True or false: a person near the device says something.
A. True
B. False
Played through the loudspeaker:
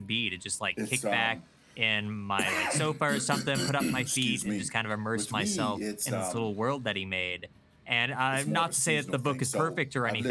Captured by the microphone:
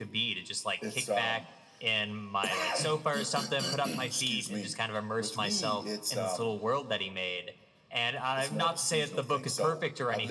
B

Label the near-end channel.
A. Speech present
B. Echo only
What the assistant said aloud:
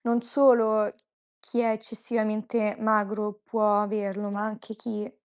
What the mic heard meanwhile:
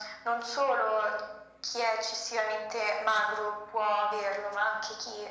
B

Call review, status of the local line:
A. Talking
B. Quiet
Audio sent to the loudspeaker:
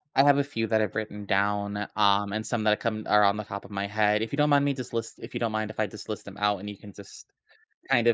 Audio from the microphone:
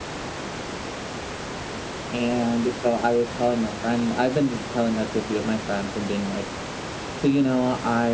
A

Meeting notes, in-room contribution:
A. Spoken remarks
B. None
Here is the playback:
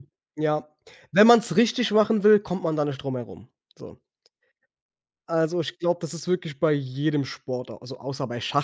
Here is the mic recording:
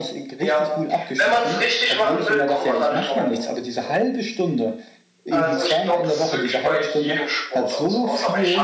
A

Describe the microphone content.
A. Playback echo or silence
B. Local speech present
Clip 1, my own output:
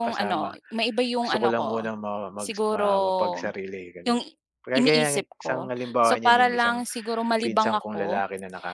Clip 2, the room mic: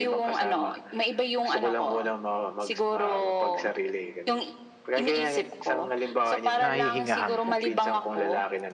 B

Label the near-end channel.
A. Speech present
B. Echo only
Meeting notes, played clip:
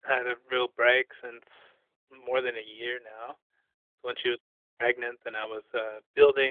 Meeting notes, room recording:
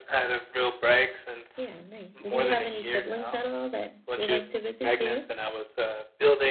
A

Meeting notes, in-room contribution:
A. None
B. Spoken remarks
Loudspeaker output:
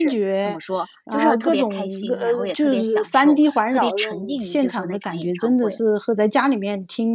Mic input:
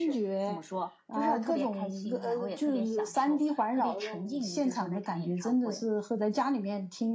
A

